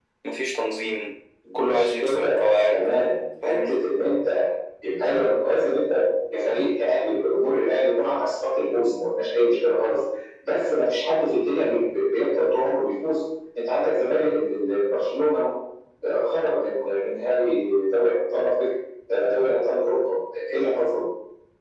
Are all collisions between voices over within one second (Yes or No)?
No